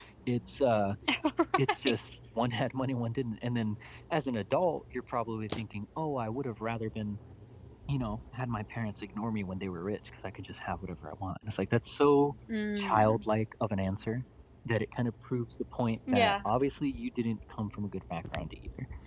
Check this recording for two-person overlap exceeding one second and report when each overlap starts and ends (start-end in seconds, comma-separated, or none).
none